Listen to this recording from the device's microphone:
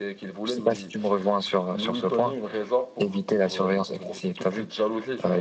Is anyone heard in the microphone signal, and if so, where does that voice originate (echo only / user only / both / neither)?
echo only